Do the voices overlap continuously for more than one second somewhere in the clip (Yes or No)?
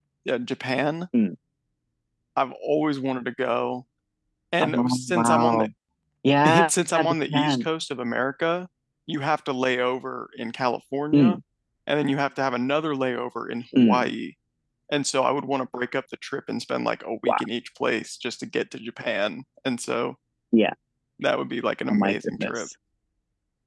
Yes